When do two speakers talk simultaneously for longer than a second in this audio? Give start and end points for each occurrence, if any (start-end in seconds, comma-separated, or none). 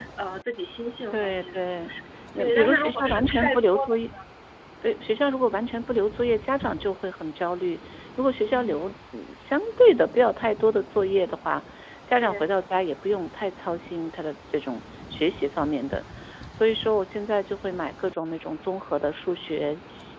2.4-4.0